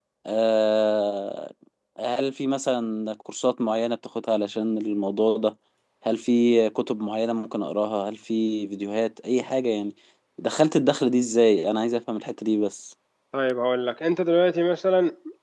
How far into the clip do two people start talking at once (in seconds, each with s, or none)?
none